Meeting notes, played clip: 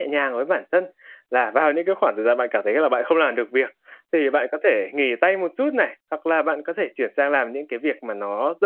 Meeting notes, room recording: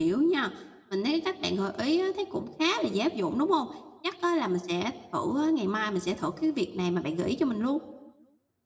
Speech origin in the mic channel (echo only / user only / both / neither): user only